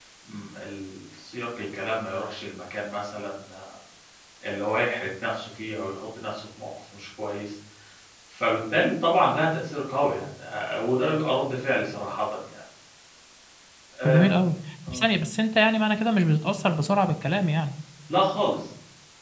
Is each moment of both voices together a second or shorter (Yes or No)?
Yes